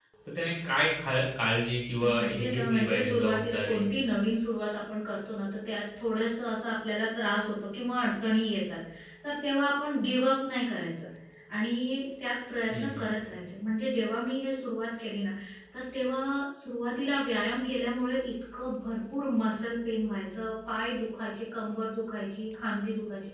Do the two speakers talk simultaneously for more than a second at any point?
Yes, from 2.0 s

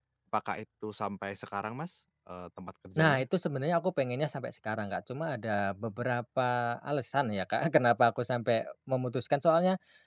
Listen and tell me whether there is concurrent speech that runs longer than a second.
No

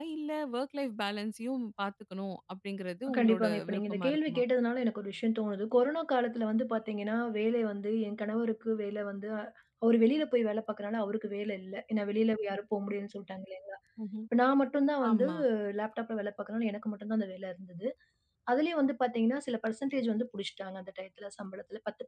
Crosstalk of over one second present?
Yes, from 3.2 s

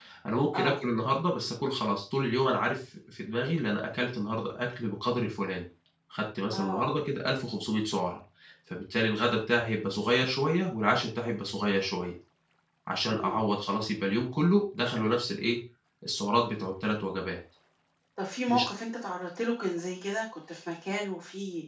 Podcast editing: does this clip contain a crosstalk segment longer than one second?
No

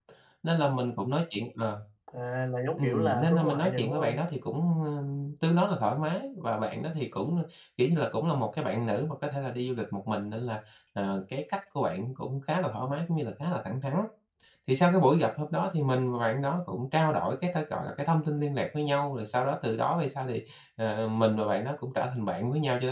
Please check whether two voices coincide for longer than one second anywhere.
Yes, from 2.8 s

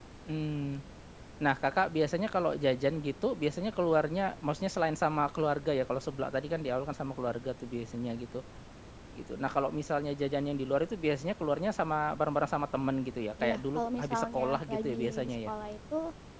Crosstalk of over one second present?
Yes, from 13.4 s

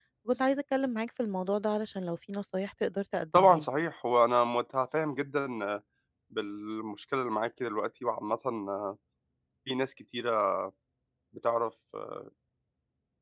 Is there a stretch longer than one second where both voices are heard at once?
No

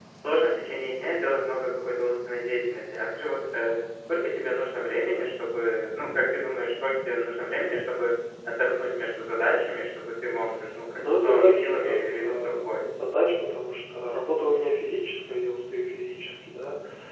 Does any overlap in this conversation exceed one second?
Yes, from 11.0 s

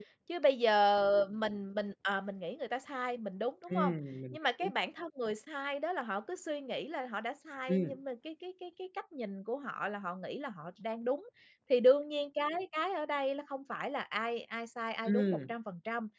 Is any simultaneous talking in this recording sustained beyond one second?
No

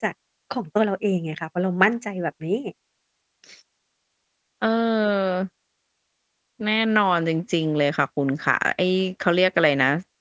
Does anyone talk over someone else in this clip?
No

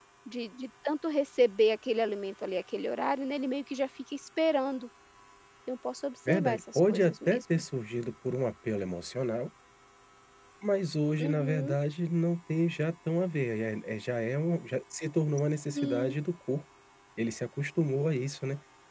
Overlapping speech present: Yes, from 6.3 s

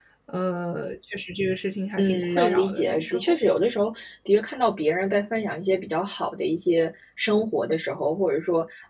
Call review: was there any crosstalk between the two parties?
Yes, from 2.0 s

